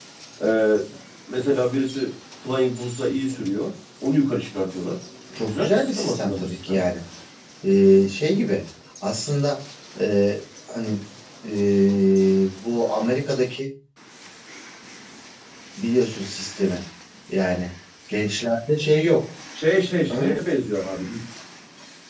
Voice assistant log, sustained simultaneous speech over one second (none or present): present